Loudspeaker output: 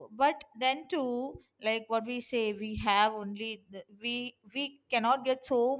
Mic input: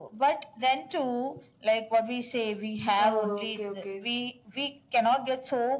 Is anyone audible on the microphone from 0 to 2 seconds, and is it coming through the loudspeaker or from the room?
echo only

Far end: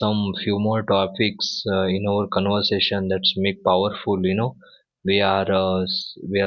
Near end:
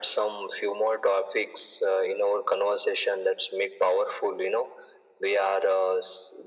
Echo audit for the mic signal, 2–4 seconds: echo only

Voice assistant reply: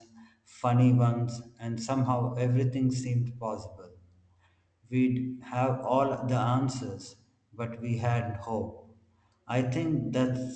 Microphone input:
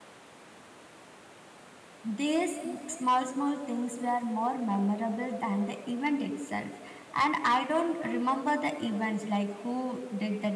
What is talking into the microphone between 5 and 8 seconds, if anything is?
user only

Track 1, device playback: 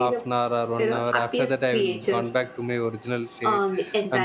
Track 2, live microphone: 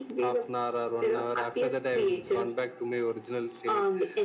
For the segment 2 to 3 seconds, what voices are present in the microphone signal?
echo only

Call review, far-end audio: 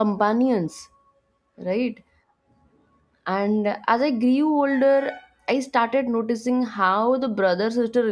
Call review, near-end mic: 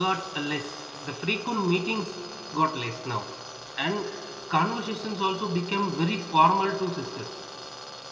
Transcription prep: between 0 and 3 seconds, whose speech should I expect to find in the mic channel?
user only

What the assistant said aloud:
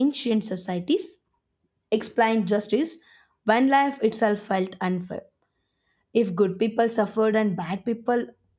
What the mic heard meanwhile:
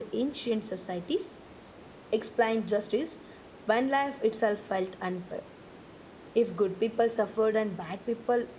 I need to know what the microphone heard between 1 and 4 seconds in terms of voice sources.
echo only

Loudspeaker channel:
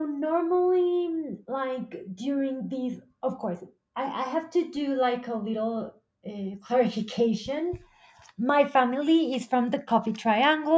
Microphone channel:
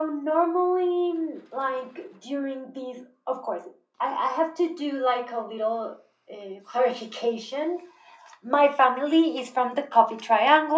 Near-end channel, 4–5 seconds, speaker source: echo only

